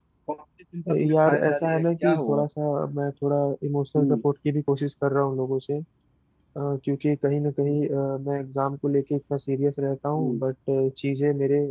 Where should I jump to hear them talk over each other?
1.1 s

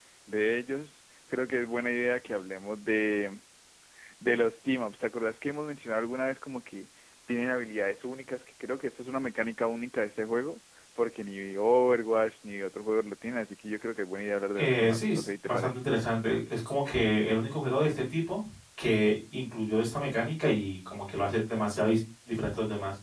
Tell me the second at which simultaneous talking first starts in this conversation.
14.6 s

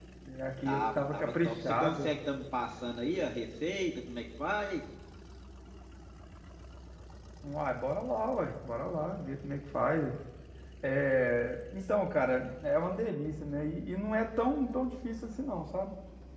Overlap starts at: 0.6 s

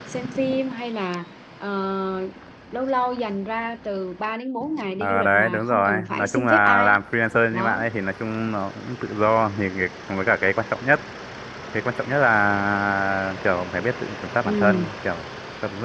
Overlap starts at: 5.0 s

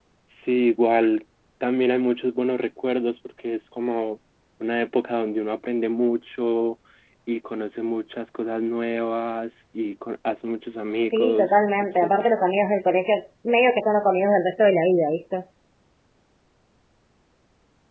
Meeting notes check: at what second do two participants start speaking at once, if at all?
11.1 s

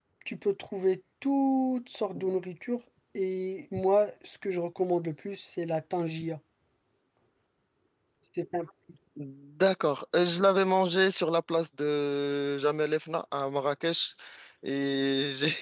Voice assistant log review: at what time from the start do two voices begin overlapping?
none

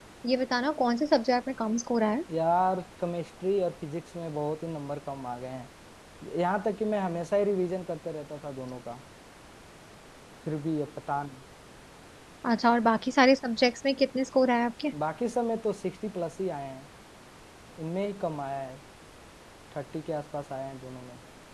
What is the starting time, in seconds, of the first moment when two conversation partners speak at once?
none

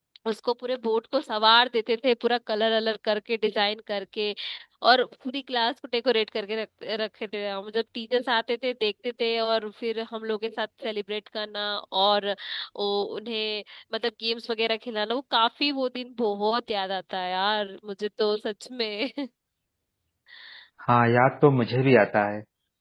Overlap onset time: none

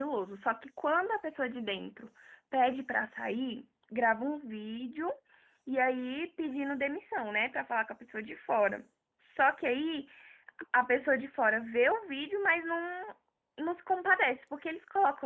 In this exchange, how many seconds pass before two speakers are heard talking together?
none

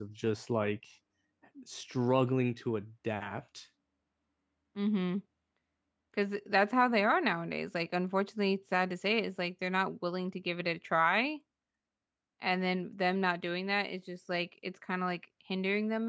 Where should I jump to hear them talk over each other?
none

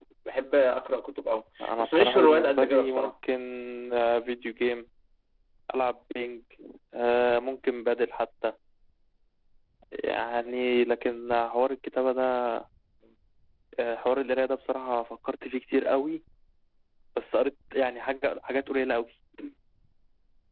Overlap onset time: 1.6 s

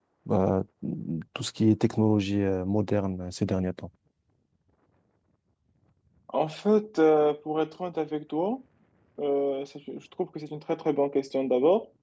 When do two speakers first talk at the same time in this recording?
none

